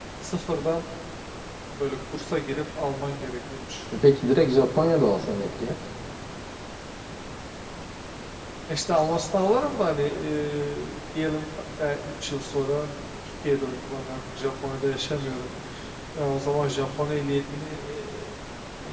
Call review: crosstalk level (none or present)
none